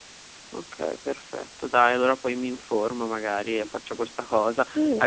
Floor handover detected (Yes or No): No